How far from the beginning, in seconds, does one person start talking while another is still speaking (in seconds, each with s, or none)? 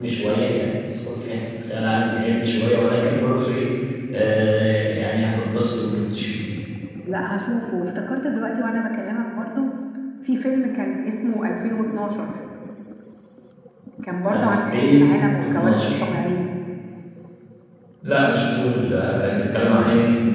14.3 s